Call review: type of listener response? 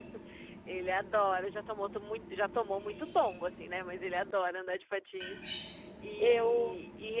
listening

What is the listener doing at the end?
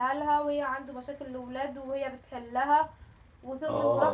listening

